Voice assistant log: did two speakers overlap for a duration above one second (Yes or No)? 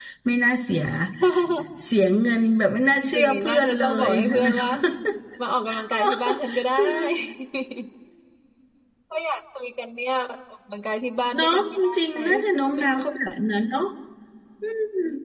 Yes